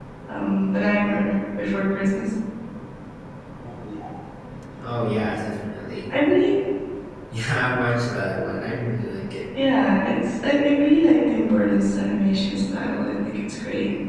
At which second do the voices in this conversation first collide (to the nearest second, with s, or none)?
none